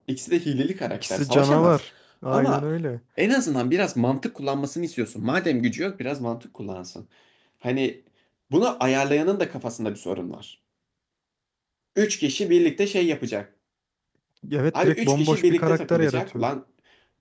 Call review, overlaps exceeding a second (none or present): present